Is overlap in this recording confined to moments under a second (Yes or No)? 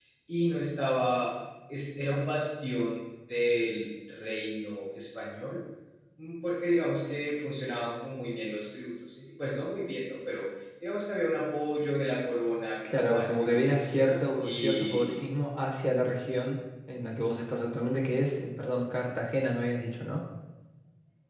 No